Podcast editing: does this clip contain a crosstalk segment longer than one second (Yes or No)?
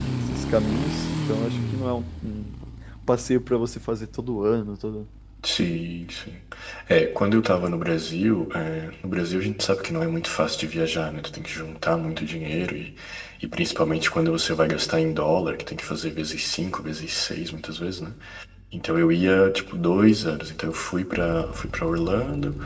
No